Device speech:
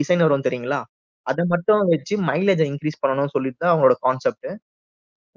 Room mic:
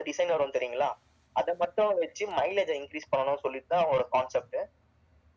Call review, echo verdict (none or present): present